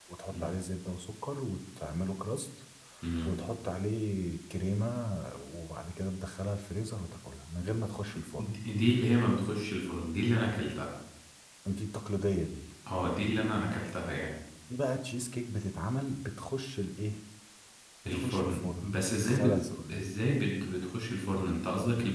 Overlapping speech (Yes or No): Yes